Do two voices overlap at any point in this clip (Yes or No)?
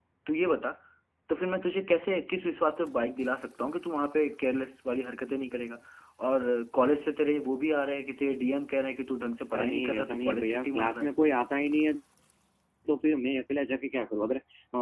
Yes